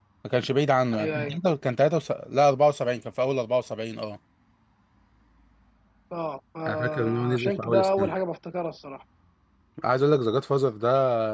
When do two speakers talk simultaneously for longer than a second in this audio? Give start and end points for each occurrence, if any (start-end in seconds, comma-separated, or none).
6.7-8.1